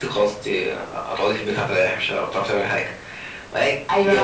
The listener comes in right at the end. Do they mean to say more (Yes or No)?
Yes